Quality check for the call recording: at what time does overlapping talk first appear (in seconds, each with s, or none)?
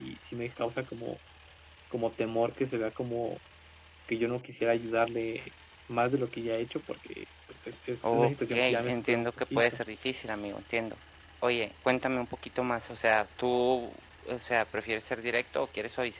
8.0 s